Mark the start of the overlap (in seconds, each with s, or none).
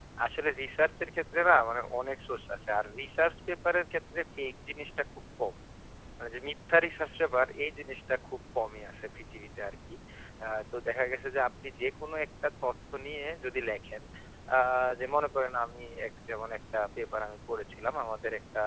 none